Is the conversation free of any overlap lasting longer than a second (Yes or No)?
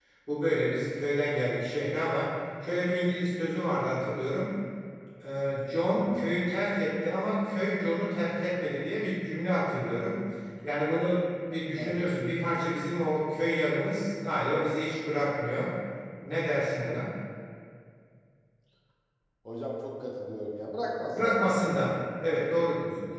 Yes